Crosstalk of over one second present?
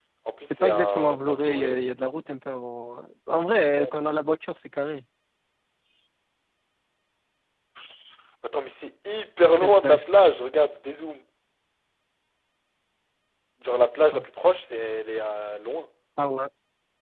Yes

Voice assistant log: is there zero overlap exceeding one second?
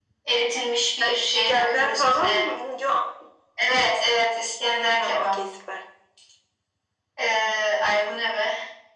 No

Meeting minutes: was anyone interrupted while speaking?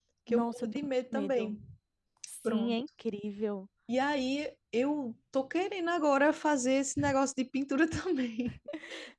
Yes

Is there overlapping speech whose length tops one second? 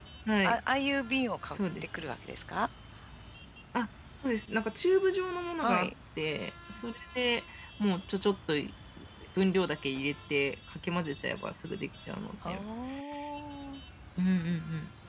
No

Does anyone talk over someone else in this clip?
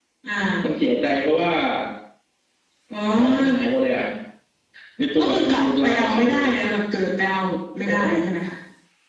Yes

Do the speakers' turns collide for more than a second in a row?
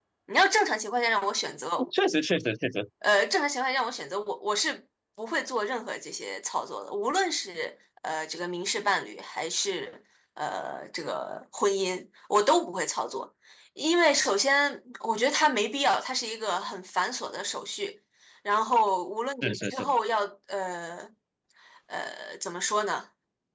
No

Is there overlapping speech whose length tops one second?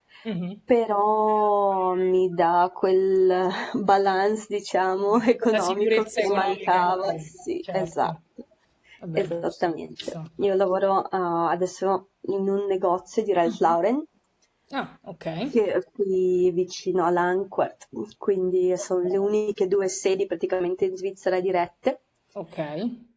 Yes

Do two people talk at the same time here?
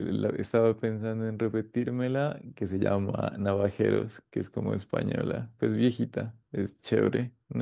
No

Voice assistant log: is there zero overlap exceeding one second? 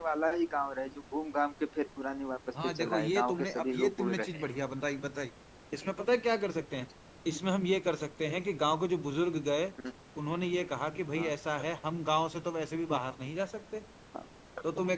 No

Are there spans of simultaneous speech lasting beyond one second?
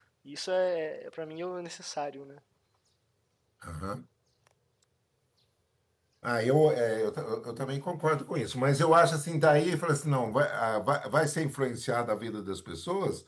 No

